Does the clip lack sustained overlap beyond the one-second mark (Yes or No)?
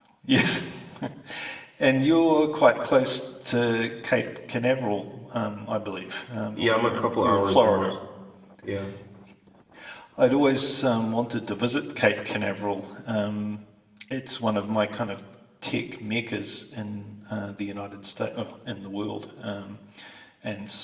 No